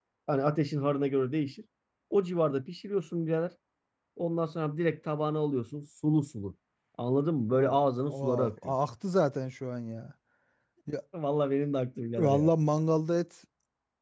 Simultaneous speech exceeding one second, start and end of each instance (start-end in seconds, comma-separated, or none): 7.5-8.8